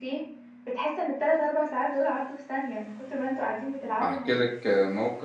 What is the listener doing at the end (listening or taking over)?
taking over